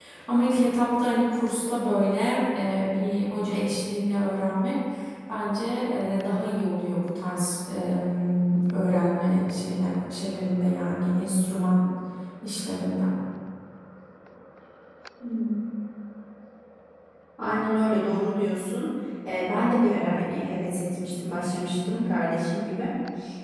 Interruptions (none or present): none